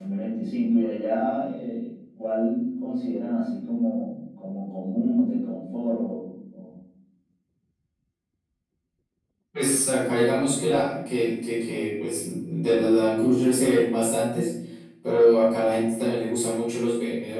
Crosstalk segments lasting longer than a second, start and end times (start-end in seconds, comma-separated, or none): none